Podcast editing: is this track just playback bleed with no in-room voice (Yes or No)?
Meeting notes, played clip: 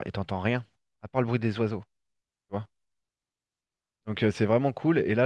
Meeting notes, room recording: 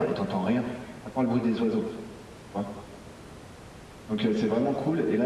Yes